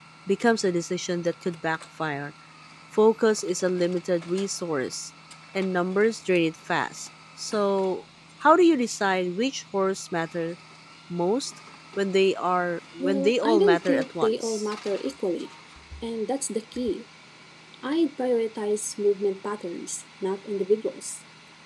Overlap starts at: 13.0 s

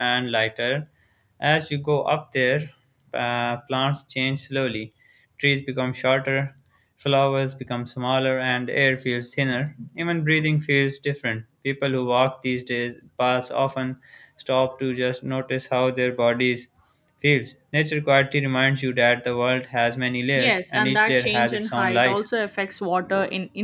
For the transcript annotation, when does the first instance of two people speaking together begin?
20.4 s

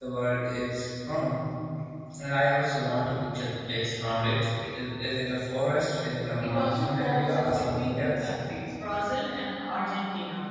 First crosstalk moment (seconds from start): 6.4 s

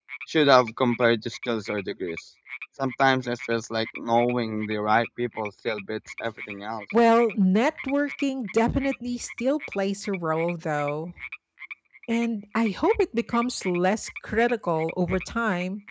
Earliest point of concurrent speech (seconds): none

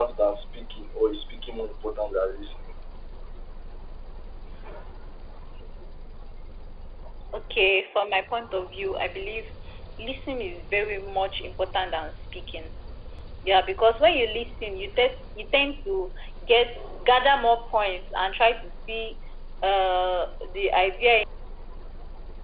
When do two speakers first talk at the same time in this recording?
none

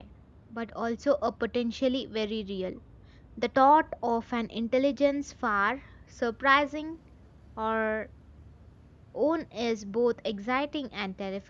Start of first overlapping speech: none

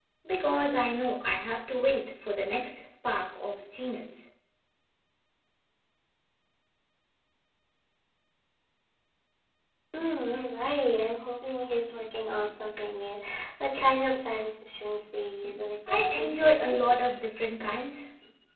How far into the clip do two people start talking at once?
15.9 s

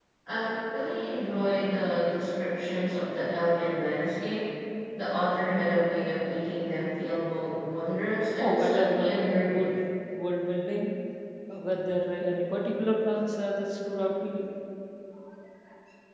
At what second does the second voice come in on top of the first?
8.4 s

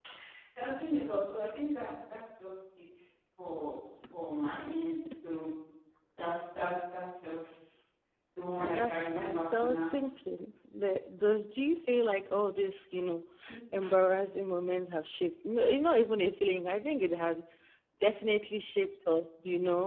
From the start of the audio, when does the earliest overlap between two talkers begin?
8.6 s

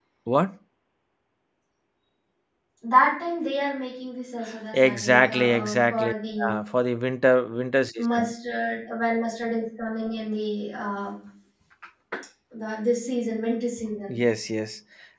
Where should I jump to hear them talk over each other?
4.7 s

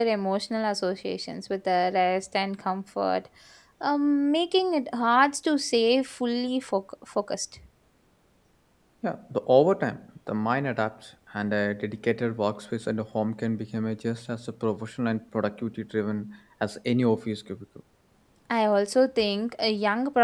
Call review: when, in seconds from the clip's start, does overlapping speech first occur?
none

